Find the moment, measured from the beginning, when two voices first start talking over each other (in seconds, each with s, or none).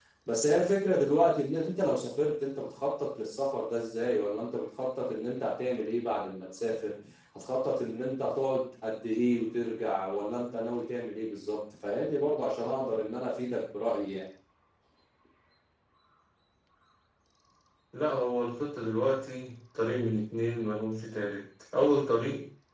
none